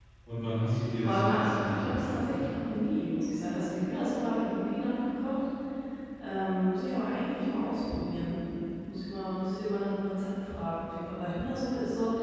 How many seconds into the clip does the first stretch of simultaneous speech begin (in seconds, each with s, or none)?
1.0 s